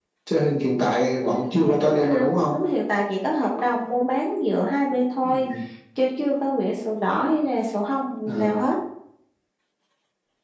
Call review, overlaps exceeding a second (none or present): present